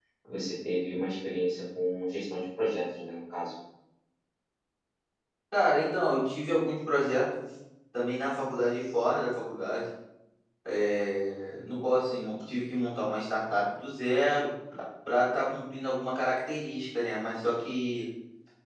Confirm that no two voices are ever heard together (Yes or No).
Yes